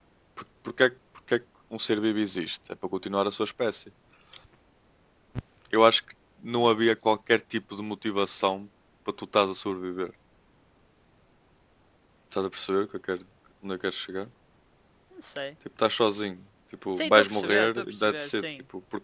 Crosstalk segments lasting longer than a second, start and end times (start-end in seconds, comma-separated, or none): 17.0-18.4